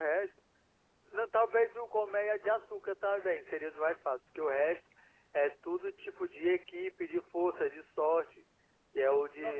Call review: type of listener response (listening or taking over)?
taking over